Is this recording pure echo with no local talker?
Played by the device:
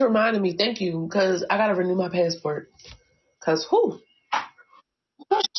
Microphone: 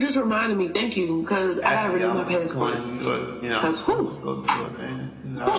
No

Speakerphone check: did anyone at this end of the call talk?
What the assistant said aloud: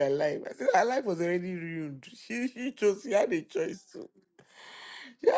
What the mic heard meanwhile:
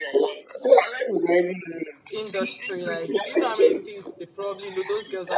Yes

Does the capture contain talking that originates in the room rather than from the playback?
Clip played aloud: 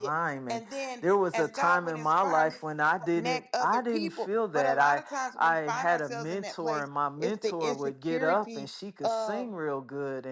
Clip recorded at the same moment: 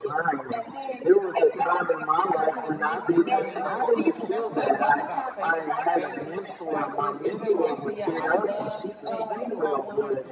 Yes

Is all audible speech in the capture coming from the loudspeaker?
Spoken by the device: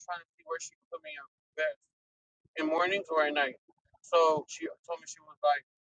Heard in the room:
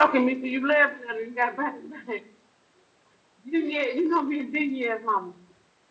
No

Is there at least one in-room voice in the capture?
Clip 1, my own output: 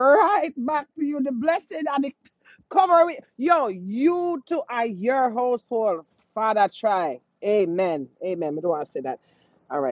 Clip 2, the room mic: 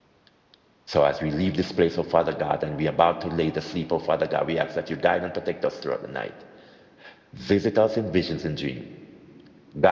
Yes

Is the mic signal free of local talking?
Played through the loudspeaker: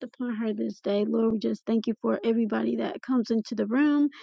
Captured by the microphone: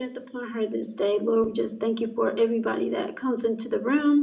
Yes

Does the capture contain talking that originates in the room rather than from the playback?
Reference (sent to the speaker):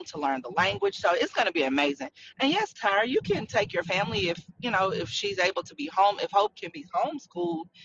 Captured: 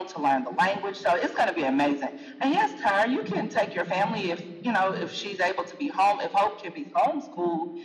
No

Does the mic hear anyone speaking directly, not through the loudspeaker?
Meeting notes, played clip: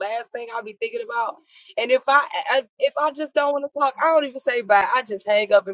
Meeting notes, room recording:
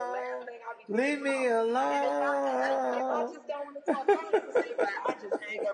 Yes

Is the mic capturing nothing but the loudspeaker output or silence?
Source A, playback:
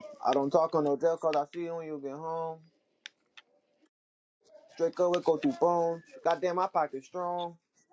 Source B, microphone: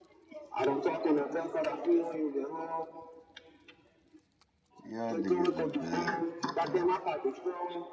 No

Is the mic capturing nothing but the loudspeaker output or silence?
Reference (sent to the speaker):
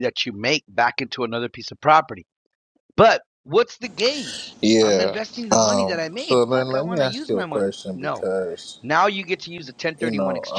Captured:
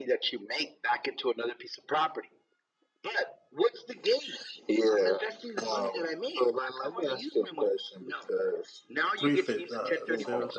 No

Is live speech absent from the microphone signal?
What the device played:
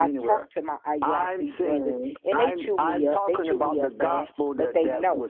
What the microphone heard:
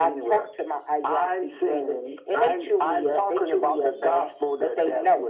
Yes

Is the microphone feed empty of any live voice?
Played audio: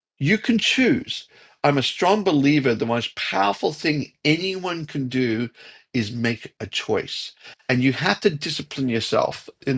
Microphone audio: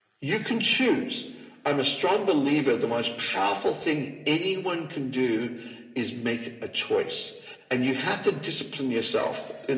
Yes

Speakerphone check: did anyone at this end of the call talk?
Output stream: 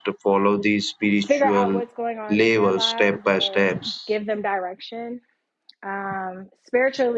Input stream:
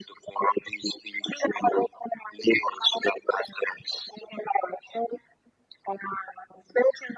No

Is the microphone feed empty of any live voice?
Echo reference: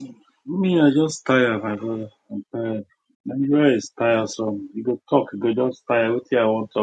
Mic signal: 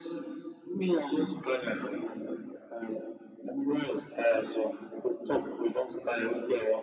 Yes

